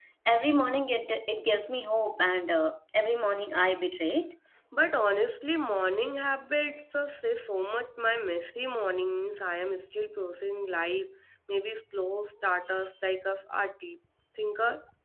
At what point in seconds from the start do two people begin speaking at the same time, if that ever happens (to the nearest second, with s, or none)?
none